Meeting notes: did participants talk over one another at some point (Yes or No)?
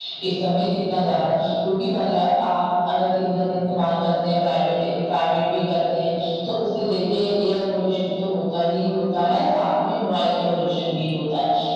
No